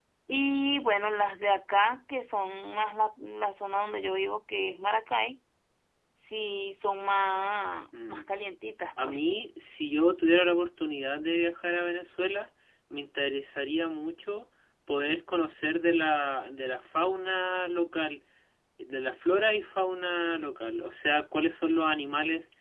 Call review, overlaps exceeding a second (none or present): none